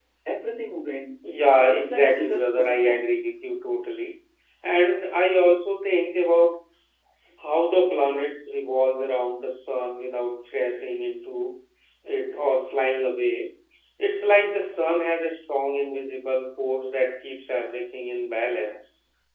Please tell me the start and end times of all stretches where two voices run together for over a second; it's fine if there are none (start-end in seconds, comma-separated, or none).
1.4-3.0